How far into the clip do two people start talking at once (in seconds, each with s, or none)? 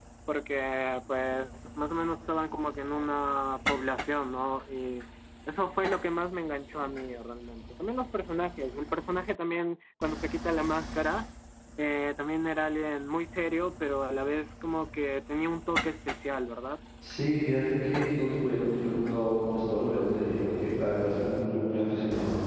none